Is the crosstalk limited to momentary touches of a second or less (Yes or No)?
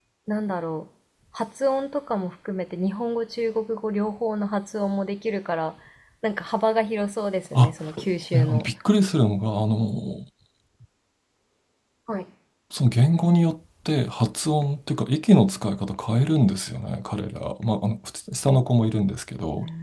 Yes